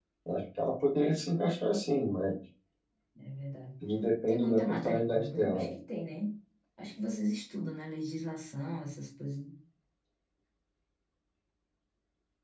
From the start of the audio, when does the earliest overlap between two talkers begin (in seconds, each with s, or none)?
4.3 s